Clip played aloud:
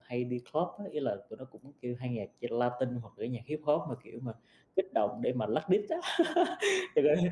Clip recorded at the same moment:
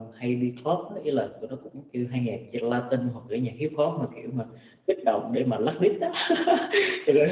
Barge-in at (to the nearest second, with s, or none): none